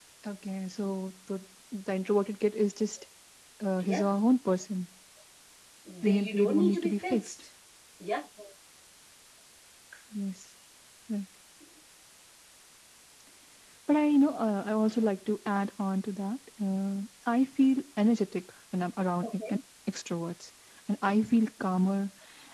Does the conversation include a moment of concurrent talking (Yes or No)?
Yes